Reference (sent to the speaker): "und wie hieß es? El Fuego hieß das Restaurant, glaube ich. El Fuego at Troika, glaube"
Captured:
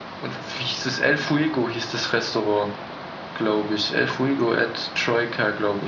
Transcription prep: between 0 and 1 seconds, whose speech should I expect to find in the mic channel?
echo only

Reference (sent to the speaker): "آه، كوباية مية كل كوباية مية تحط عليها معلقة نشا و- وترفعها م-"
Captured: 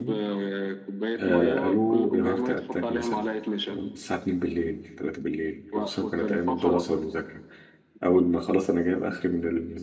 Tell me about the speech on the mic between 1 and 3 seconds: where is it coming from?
both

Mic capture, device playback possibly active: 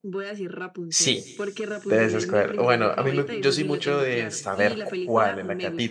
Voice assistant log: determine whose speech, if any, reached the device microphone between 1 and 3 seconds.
both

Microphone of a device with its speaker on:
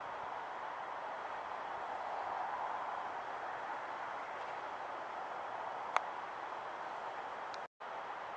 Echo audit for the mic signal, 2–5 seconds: neither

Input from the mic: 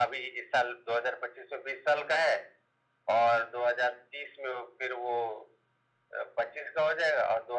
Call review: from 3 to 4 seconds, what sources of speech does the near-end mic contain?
echo only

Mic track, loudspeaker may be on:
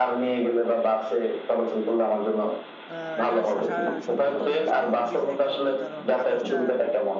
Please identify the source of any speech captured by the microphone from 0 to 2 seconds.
echo only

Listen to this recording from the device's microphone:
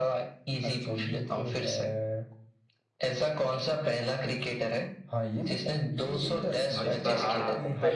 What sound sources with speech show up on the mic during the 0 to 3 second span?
echo only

